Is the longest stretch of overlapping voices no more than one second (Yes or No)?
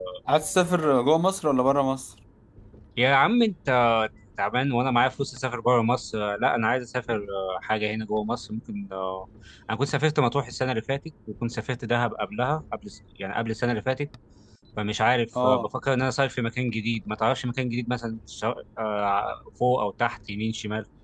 Yes